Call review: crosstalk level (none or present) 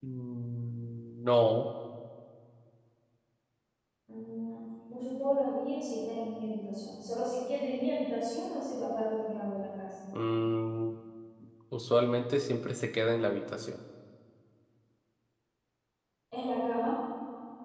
none